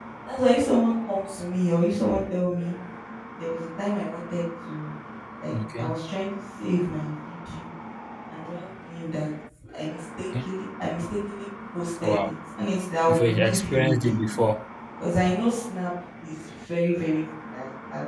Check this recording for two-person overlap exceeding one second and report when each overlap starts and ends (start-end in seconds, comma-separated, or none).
13.1-14.4